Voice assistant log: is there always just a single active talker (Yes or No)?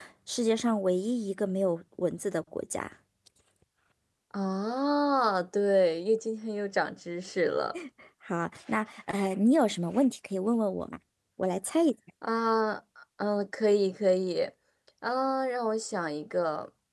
Yes